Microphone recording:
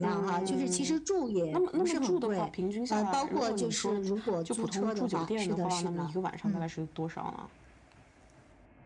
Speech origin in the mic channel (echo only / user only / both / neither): echo only